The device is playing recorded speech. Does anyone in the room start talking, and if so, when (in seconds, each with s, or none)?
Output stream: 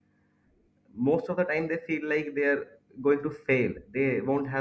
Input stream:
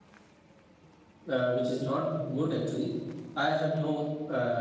1.3 s